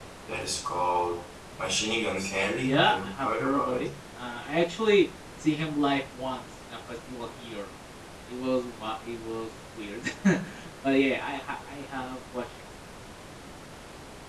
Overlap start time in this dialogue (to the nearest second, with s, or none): 3 s